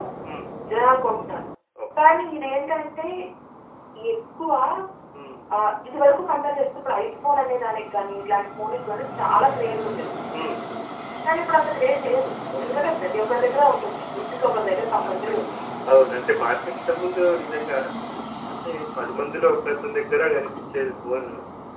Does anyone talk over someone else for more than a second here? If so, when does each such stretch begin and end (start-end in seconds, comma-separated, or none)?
none